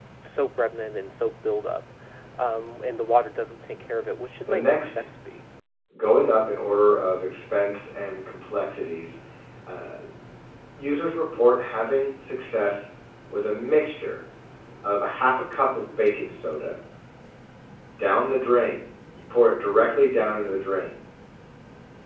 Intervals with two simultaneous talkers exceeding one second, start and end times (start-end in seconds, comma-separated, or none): none